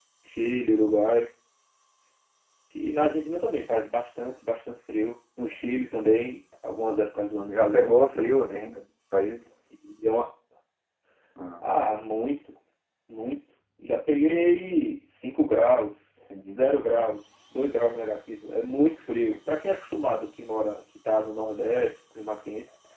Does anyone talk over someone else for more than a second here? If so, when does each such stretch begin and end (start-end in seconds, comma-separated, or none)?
7.5-8.7